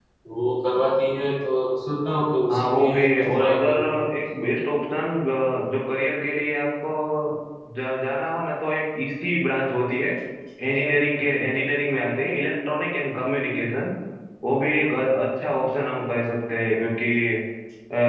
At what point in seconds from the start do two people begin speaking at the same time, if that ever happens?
2 s

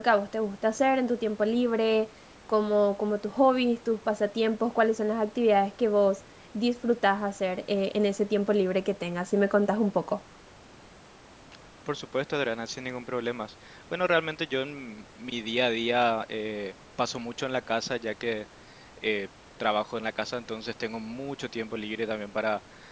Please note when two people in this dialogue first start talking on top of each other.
none

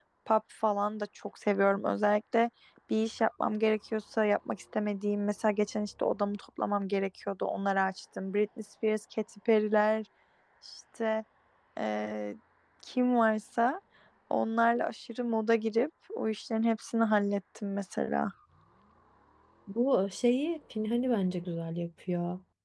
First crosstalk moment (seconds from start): none

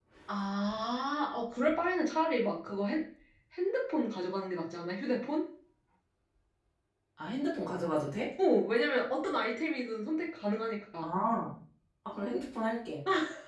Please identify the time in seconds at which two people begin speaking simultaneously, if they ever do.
none

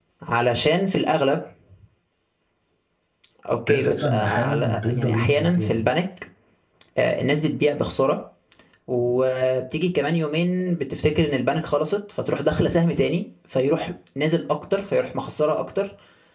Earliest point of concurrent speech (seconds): 4 s

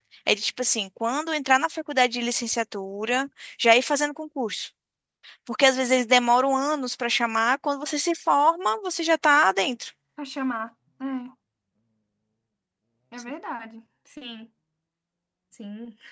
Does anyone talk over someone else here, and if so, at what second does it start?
none

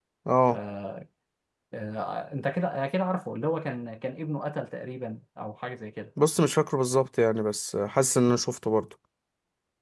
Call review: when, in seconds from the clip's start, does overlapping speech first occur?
none

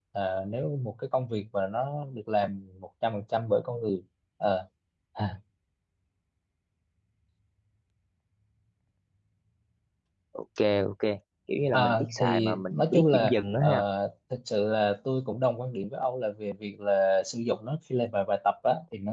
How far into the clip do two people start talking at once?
12 s

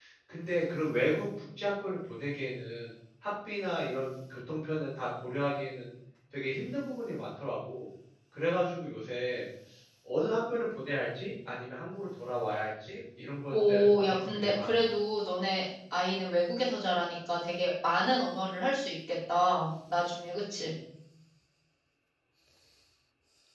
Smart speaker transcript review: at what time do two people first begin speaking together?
14 s

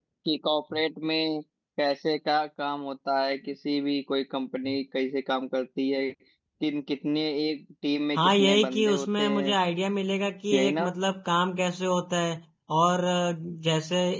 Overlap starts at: 8 s

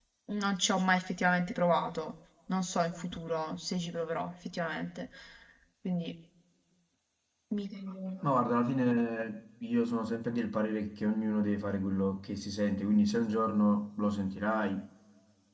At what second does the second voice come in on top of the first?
none

